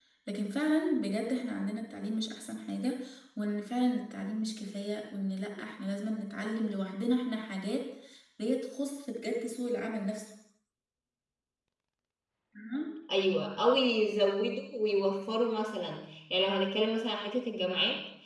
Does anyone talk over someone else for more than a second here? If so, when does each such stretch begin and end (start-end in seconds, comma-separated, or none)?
none